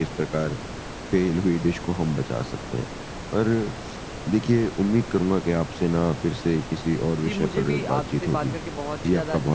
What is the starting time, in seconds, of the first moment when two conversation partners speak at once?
7.2 s

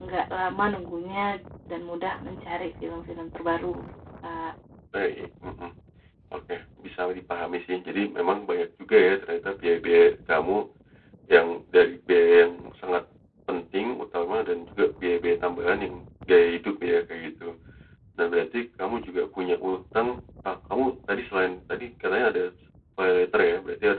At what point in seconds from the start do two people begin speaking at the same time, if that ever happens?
none

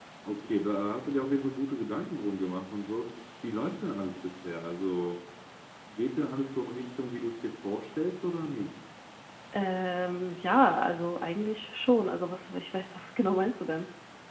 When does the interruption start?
none

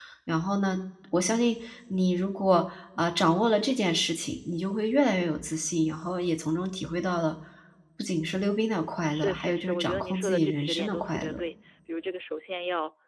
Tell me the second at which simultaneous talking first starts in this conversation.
9.0 s

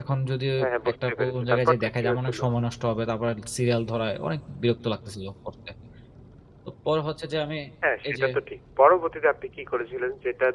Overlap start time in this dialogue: 0.9 s

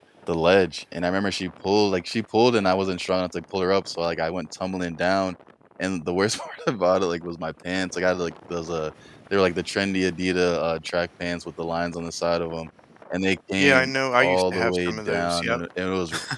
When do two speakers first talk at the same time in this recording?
13.6 s

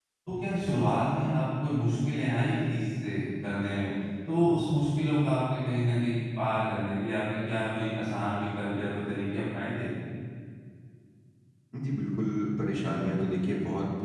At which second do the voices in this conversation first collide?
none

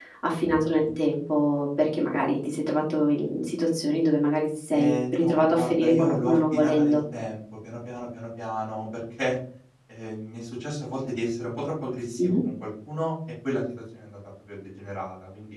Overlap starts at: 4.7 s

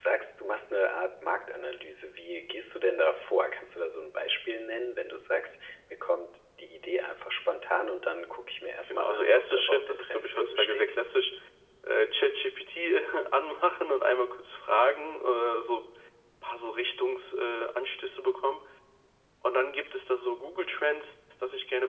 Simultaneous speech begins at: 8.9 s

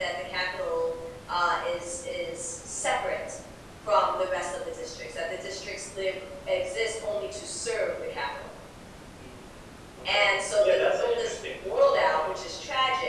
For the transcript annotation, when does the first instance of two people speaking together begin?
10.1 s

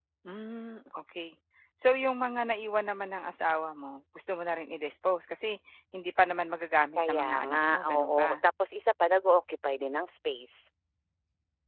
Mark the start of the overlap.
7.0 s

